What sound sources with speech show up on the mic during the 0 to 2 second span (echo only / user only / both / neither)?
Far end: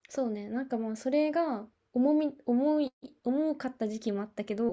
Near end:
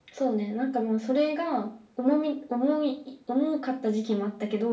echo only